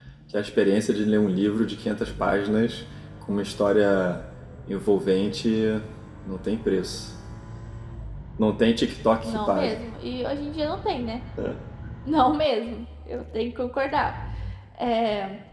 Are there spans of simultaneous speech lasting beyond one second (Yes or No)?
No